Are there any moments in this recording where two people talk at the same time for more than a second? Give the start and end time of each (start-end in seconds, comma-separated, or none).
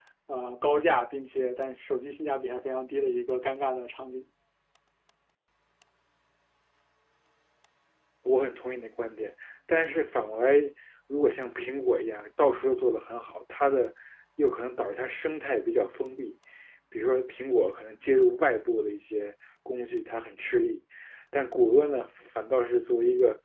none